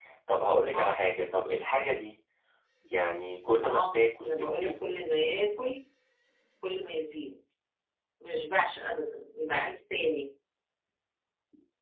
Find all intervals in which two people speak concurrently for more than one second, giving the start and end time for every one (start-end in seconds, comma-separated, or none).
3.6-4.8